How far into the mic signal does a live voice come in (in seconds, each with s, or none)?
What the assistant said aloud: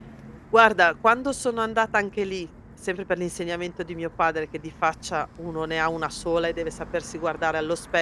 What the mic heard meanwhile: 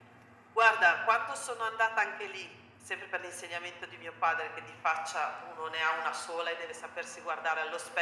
none